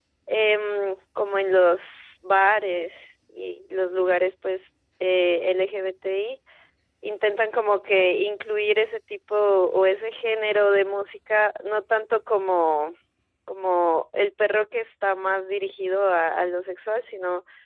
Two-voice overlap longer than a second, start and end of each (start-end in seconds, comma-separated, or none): none